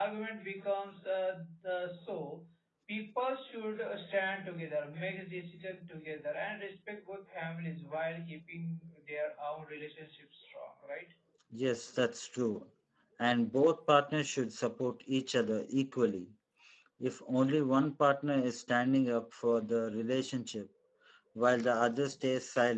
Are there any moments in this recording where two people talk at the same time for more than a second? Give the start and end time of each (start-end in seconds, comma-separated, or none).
none